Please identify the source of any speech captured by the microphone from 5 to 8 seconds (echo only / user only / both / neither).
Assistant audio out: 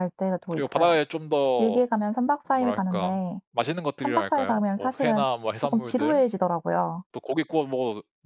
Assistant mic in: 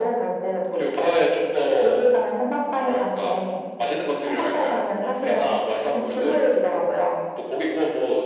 echo only